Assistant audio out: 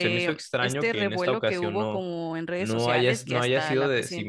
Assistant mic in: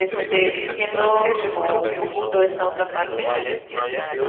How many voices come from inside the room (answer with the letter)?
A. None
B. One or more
B